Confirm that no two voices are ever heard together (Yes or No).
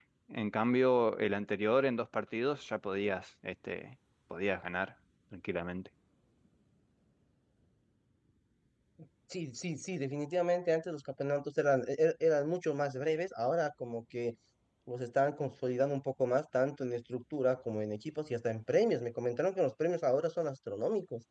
Yes